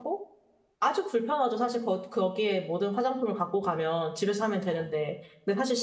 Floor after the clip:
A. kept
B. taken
A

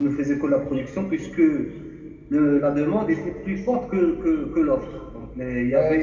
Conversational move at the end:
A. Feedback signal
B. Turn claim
B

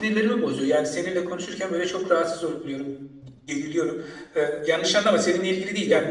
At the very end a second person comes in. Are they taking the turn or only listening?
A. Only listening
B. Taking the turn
A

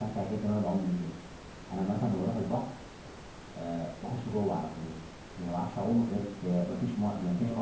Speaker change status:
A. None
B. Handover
B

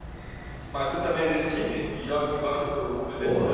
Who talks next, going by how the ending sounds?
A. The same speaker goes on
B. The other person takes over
B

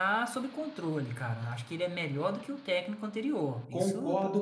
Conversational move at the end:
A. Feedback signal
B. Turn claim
B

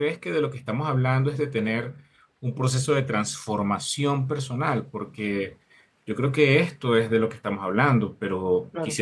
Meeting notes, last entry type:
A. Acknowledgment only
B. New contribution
B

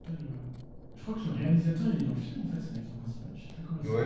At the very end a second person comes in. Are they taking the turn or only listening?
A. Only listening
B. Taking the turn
B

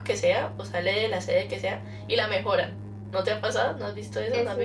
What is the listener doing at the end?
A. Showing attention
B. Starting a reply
B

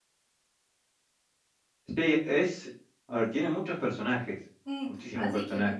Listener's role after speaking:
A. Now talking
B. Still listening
A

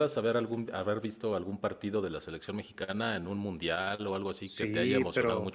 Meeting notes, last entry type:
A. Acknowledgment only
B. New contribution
B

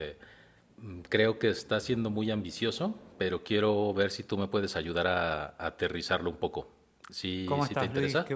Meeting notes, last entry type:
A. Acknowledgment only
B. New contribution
B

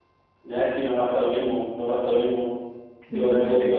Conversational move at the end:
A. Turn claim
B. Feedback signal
B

